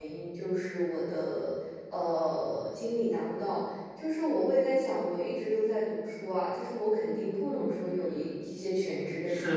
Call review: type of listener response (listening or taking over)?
taking over